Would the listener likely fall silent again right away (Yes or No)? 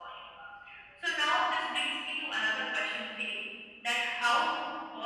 Yes